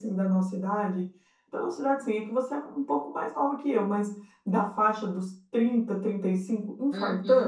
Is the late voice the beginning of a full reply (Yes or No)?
Yes